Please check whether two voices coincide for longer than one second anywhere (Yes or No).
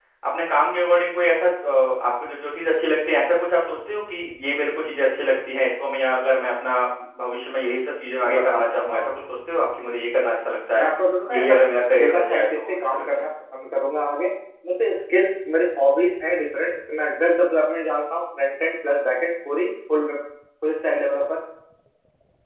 Yes